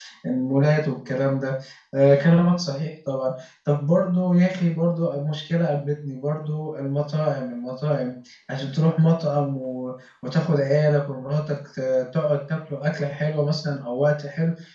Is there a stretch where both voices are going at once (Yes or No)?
No